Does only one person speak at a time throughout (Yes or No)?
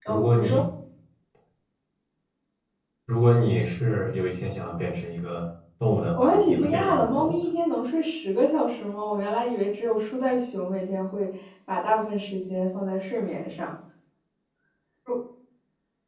No